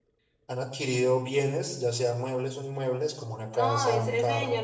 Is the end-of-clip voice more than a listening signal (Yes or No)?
Yes